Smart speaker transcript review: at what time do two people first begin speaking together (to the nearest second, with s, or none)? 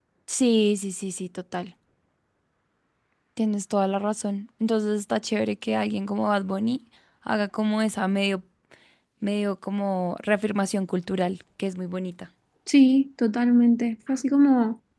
none